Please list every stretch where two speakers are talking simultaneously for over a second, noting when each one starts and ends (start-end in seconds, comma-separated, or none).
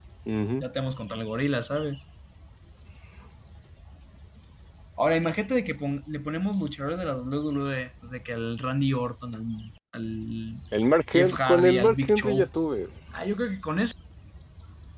11.1-12.5